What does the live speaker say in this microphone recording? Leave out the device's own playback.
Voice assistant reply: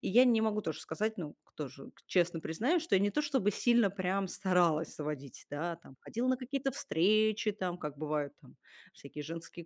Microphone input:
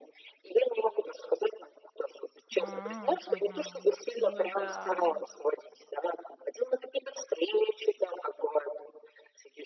М. Мгм. Ну да.

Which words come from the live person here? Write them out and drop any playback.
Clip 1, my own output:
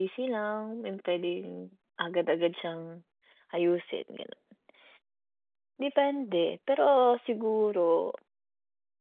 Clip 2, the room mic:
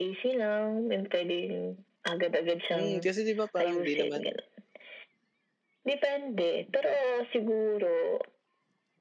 Hmm, kasi 'di ba parang 'di naman,

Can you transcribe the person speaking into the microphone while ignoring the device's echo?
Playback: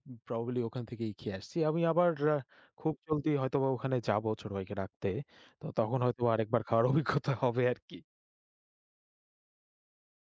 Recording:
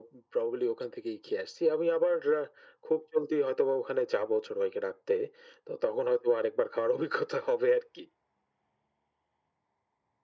none

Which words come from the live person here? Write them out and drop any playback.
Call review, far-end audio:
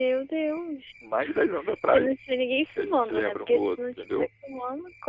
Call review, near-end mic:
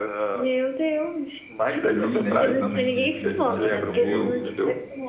e ele lembra também de de uns lances meu,

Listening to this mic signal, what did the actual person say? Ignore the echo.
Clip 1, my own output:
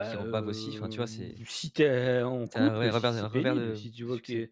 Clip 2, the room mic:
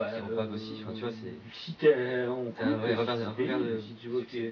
none

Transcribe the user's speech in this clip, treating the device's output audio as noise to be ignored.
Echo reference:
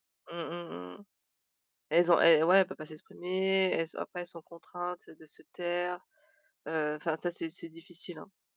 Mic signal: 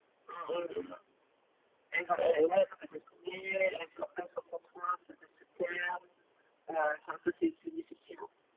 none

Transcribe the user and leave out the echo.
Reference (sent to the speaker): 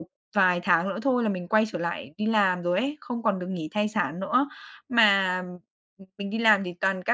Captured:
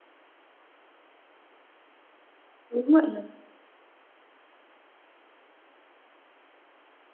Đúng vậy nè.

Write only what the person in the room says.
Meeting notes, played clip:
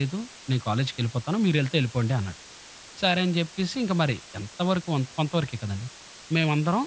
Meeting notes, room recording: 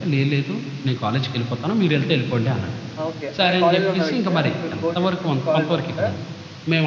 ఆ! ఓకే. ఆయన కాలేజిలో ఉన్న వ్యక్తా? మీ ఫోను చేసిన వ్యక్ కాలేజిలో ఉన్నాడా?

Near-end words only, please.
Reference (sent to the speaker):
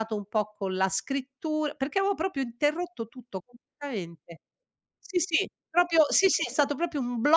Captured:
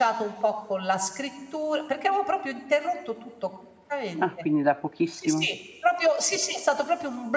Ah, quindi da pochissimo.

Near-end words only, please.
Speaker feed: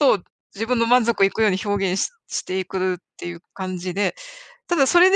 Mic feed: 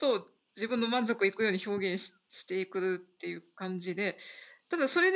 none

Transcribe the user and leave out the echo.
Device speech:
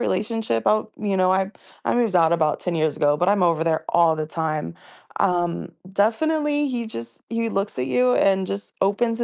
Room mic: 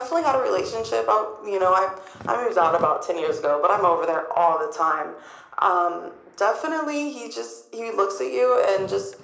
none

